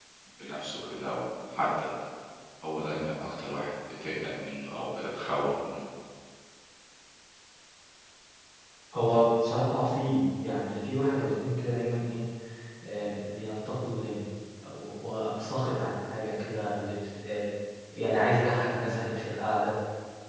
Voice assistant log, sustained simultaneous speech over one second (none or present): none